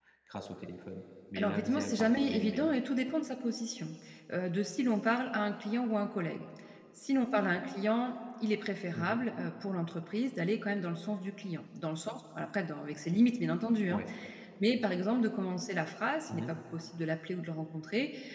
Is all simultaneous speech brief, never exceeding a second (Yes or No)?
No